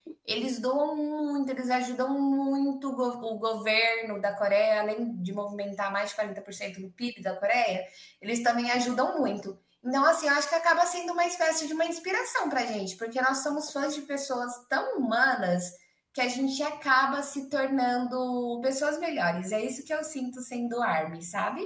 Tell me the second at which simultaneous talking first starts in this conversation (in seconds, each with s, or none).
none